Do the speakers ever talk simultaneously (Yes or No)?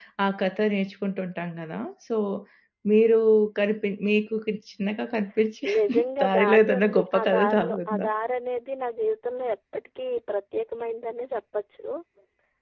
Yes